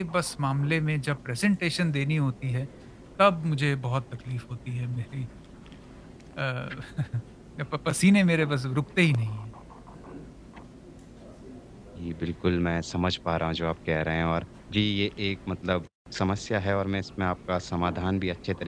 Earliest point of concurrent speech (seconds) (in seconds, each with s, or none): none